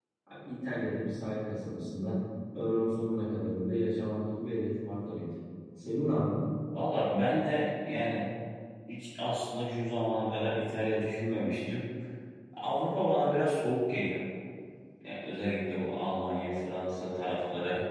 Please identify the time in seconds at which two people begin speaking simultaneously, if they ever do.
none

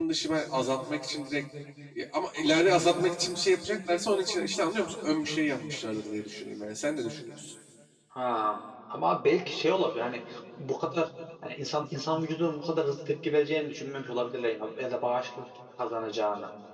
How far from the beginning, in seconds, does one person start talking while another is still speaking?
none

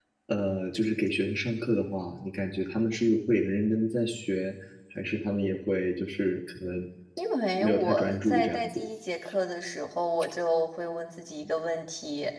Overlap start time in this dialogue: 7.6 s

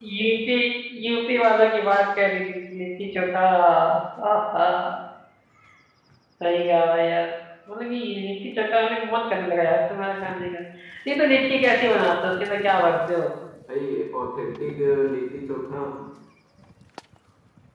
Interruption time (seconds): none

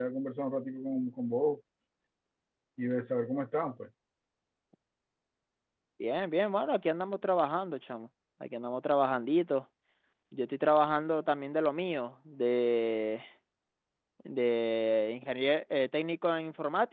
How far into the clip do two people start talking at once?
none

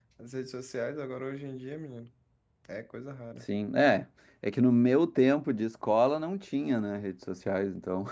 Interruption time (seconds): none

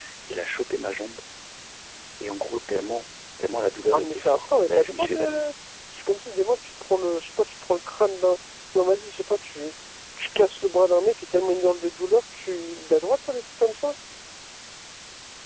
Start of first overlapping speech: 3.9 s

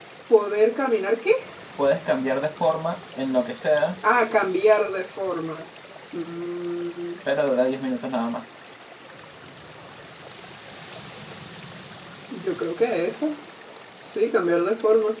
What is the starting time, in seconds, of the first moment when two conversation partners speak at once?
none

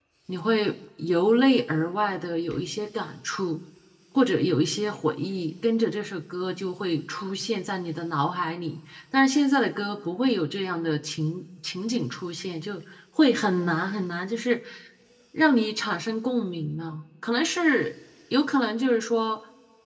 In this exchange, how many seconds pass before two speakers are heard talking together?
none

